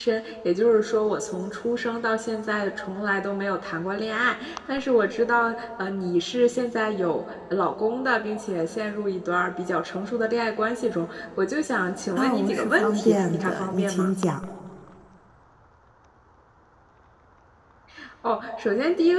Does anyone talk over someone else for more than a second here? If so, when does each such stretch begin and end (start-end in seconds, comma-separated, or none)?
12.1-14.1